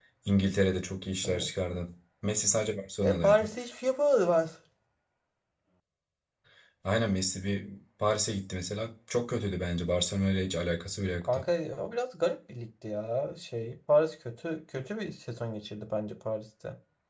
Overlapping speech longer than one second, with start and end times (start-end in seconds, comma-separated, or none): none